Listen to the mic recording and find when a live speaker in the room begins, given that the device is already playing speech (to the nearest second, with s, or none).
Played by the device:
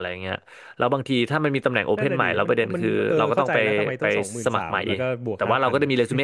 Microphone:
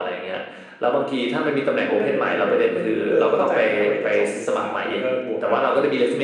none